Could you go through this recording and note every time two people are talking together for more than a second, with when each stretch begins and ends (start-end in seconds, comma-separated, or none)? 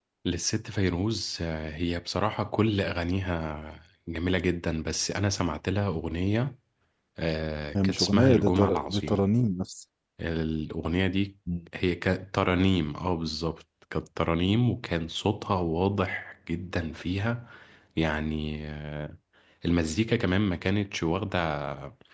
7.8-9.2